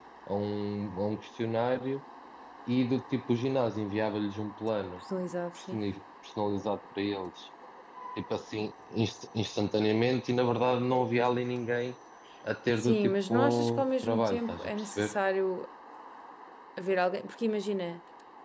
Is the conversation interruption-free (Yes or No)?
No